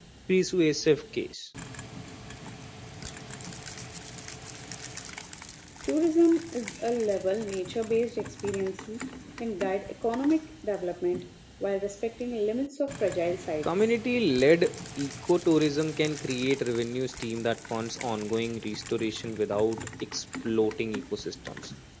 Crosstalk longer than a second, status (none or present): none